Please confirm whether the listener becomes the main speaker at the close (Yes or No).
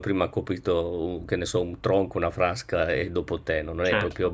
Yes